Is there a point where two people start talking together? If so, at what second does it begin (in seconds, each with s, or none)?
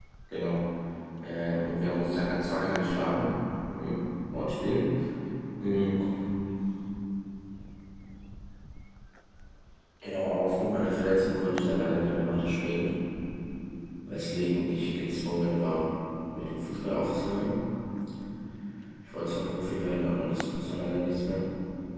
none